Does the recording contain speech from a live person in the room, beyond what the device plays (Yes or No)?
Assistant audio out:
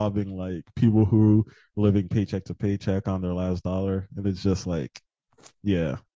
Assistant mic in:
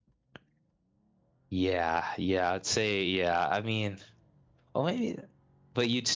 Yes